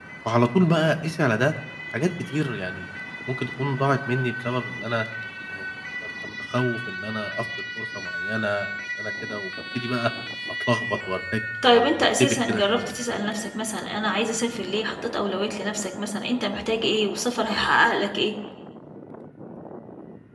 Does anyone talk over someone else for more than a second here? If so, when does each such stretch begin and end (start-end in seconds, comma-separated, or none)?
11.6-12.9